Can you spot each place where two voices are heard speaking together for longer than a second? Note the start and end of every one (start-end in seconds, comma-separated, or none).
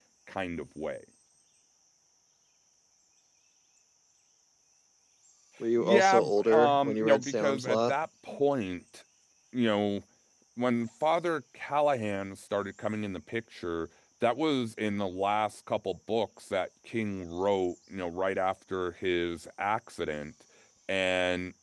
5.8-7.9